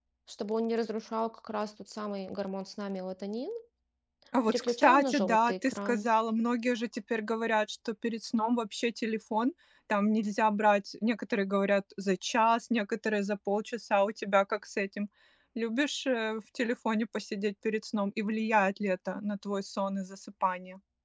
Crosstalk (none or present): present